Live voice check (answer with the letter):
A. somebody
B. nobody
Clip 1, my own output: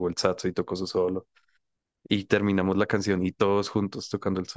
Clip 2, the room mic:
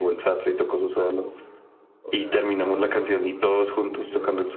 A